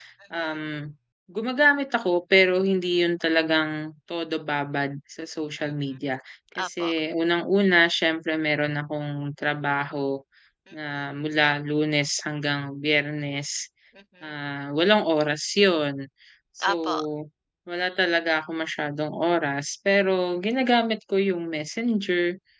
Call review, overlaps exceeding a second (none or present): none